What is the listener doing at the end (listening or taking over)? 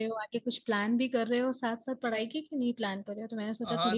taking over